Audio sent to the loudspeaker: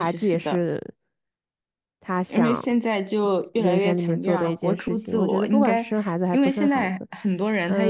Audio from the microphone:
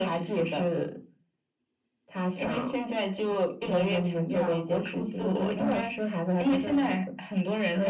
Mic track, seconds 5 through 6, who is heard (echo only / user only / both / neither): echo only